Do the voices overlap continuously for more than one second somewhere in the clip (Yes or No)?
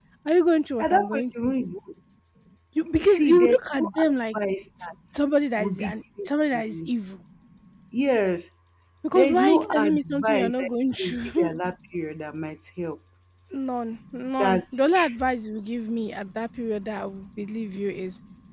Yes